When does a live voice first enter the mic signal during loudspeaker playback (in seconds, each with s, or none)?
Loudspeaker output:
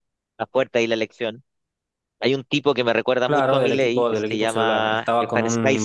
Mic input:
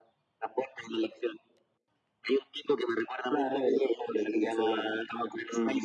none